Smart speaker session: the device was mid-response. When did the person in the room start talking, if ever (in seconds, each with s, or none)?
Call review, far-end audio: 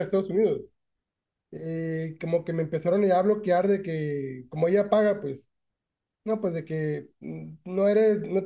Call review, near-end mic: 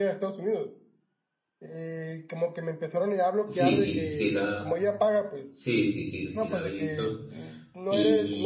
3.4 s